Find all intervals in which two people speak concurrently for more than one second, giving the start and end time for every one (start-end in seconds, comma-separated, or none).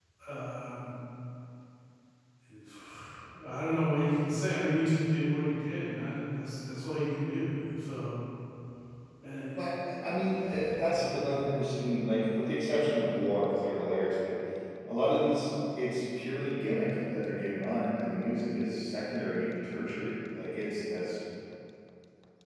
none